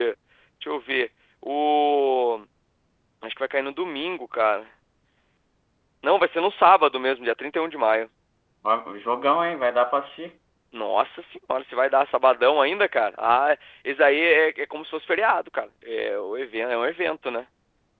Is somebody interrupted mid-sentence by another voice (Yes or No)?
No